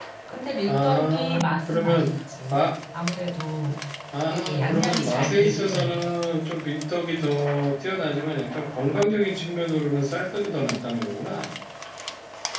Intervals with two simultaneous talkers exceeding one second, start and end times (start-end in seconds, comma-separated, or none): 0.7-2.1, 4.3-6.1